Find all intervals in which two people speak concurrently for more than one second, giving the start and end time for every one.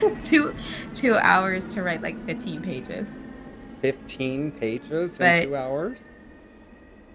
none

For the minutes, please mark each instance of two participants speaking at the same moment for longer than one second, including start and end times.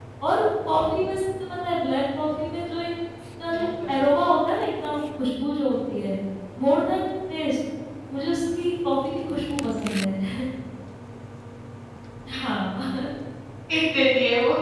none

